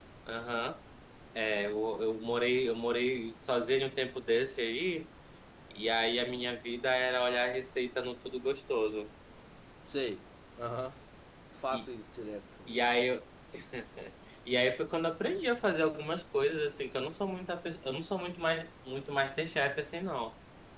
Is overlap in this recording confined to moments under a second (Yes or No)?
Yes